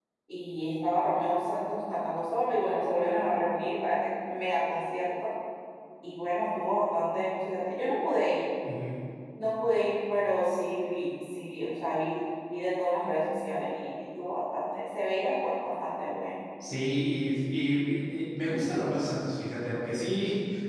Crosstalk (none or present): none